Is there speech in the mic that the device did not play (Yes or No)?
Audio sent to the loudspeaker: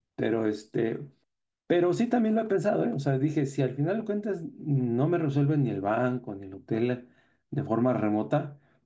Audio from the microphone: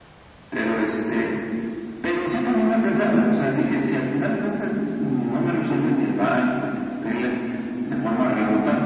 No